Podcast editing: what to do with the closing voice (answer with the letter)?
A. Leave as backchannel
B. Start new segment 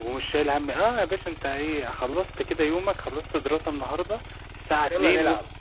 A